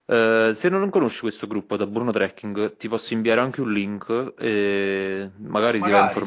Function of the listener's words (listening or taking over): listening